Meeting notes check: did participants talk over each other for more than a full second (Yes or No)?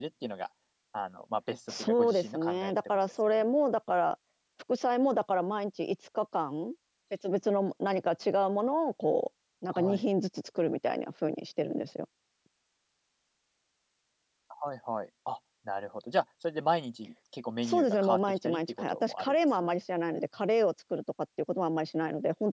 Yes